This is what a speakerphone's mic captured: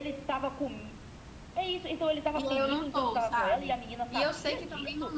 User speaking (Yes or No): Yes